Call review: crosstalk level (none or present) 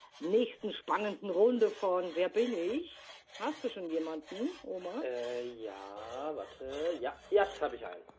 none